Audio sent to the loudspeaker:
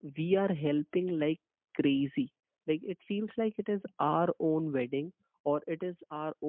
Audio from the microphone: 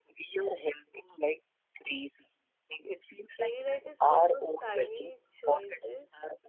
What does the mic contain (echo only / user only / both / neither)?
both